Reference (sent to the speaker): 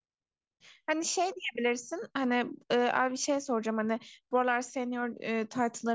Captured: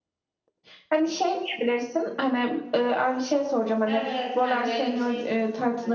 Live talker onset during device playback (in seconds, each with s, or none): 3.9 s